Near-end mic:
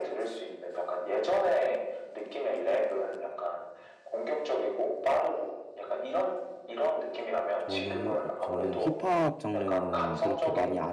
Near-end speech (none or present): present